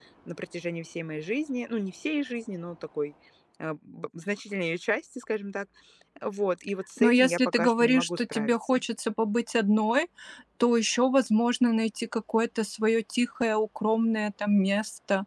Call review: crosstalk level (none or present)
present